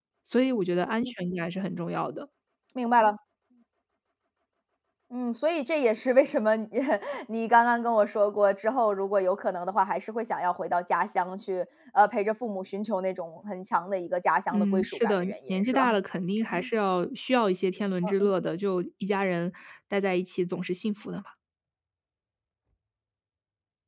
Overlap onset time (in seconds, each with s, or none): 14.5 s